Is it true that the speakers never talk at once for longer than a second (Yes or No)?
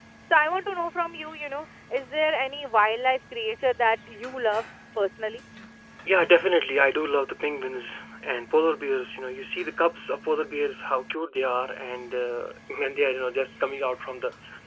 Yes